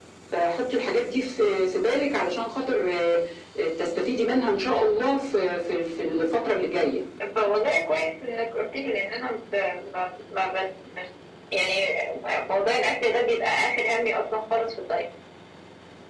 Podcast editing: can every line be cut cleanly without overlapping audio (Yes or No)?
Yes